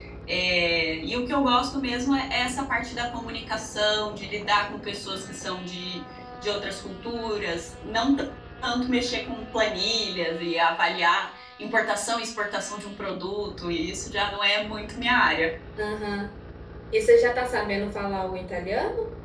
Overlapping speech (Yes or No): No